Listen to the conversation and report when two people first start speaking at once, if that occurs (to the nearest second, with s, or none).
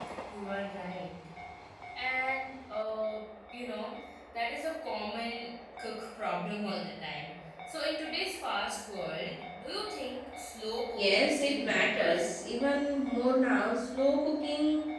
11 s